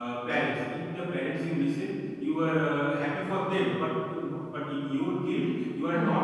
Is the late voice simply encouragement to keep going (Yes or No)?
Yes